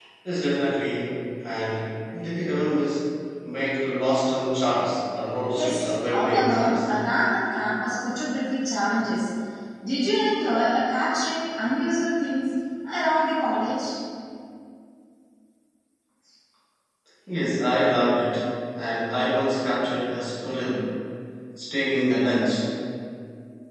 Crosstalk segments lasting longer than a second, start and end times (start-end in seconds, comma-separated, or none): 5.5-6.7